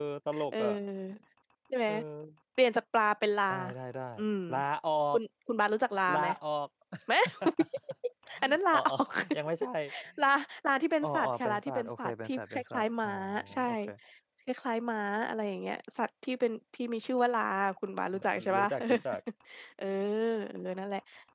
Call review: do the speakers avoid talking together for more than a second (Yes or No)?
No